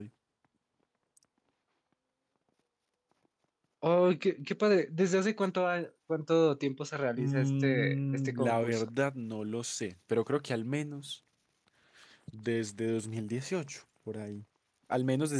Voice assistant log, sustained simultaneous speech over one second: present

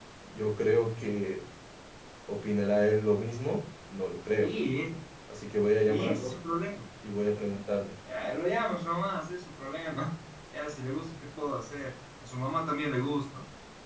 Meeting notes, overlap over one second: none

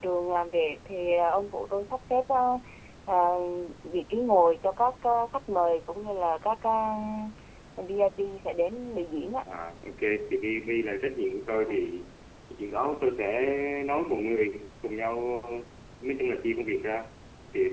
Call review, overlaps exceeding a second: none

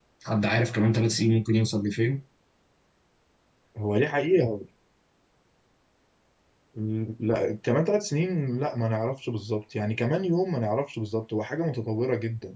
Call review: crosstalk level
none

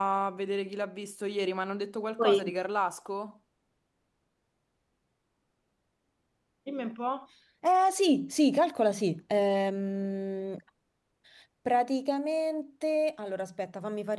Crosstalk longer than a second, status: none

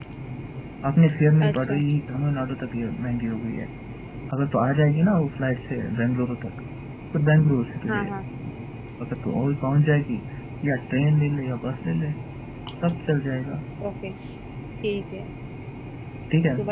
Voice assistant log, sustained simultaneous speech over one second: none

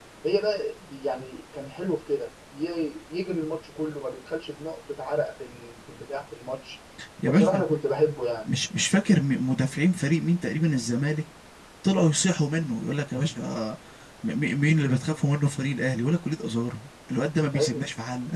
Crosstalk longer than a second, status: none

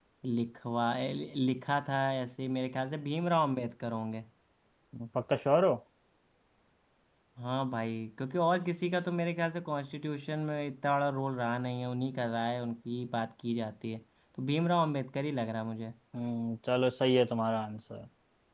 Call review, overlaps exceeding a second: none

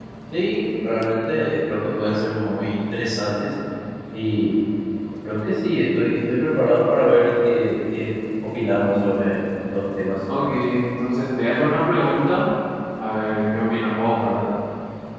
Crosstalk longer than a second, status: none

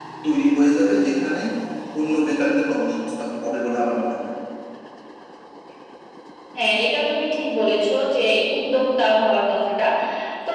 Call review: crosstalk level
none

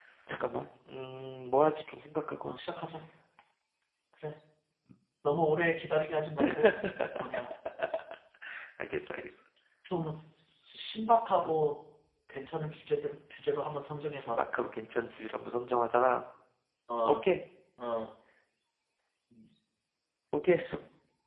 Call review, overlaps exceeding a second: none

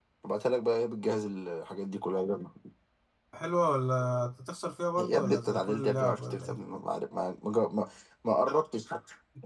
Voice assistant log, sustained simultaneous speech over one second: present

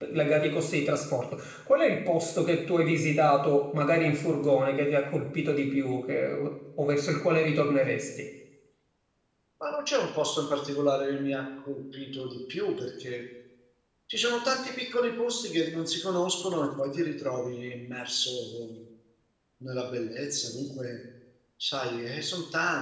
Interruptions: none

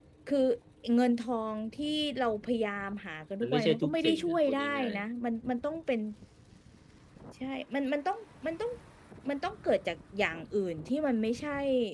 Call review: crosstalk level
present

